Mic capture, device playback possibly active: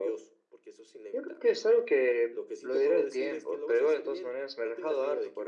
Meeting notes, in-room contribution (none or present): none